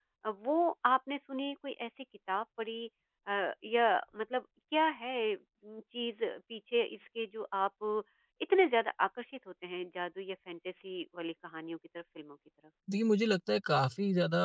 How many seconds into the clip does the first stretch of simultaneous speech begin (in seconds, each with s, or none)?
none